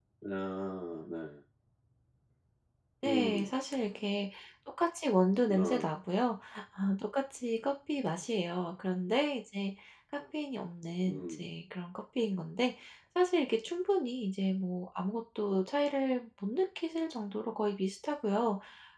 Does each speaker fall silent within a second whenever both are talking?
Yes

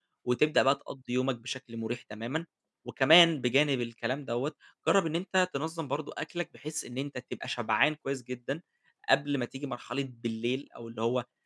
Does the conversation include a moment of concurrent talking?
No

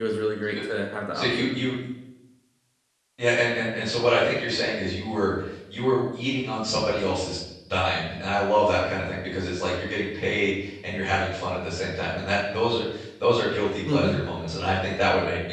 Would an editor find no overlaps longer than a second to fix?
Yes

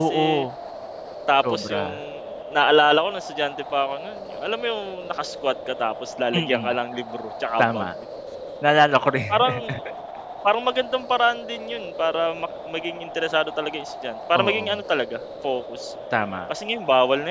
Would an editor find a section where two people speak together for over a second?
No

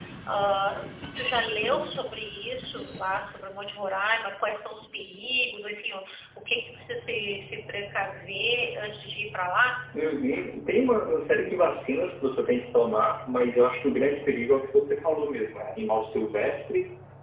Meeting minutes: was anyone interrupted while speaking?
No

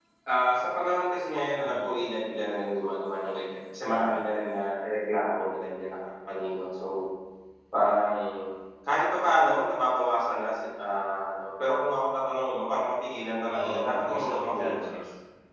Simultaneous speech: Yes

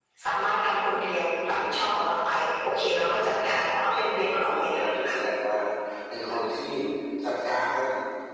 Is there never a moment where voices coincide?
No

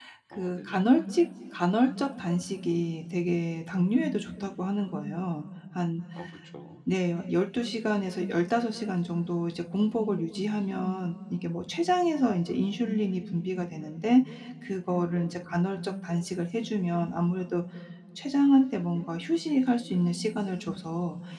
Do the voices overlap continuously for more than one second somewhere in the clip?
No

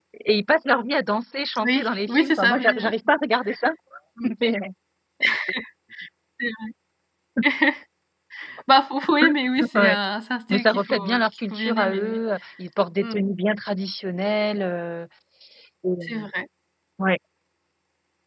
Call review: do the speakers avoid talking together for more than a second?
No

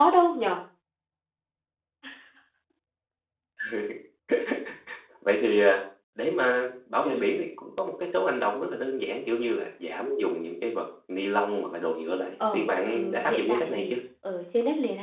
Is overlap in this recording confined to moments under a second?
No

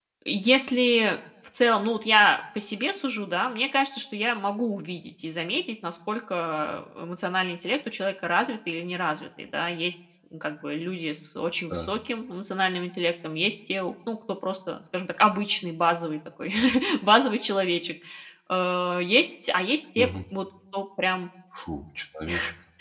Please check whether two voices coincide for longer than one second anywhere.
No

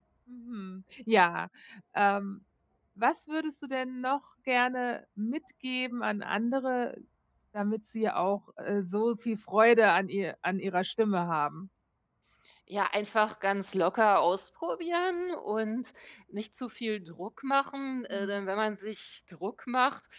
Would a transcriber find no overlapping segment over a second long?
Yes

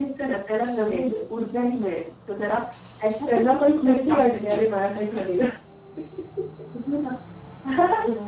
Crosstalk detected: Yes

